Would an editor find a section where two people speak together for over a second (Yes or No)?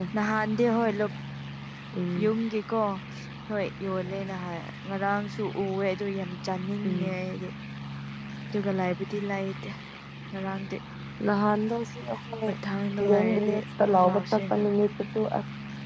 Yes